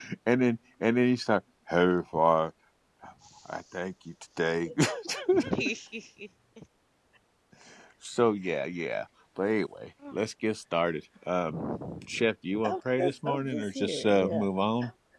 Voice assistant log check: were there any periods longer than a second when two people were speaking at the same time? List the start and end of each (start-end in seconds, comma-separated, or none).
13.0-14.5